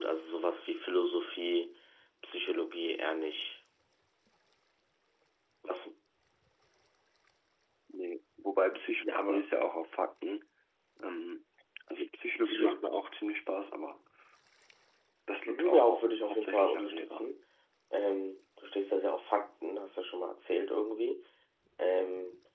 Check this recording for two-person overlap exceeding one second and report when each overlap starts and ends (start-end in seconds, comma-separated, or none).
15.5-17.3